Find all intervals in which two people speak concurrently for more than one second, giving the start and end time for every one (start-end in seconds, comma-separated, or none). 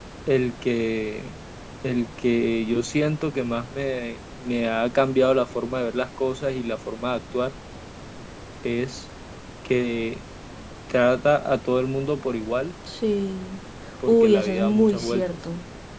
14.1-15.4